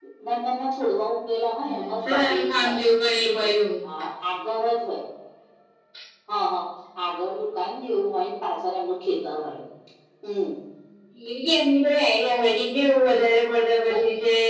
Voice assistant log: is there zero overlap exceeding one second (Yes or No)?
No